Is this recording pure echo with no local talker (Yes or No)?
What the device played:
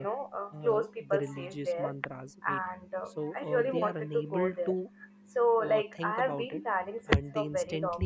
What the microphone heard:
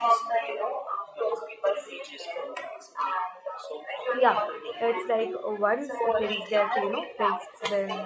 No